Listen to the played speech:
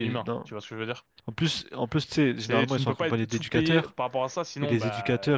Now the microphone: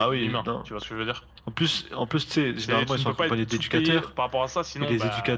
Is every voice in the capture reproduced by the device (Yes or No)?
Yes